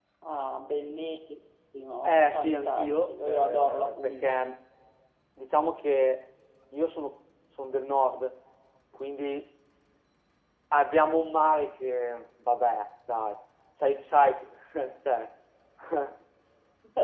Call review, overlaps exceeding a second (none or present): present